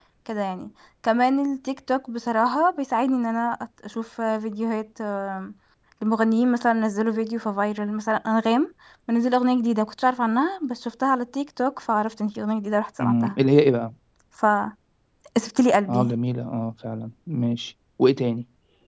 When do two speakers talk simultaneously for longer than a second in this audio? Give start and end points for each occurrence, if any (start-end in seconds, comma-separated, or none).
none